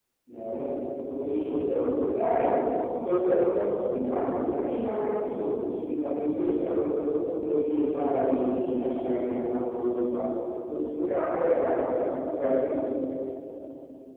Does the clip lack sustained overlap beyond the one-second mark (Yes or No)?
Yes